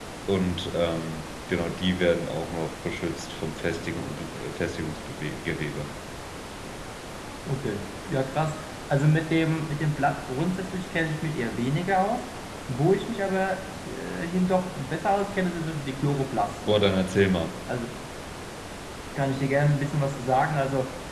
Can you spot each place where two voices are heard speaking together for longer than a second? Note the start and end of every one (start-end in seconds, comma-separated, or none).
none